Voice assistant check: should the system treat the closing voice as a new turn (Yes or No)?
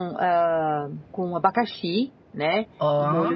No